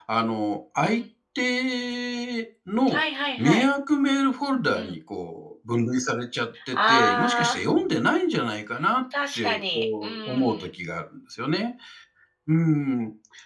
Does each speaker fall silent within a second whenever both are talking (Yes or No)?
No